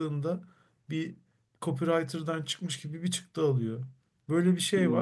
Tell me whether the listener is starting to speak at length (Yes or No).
No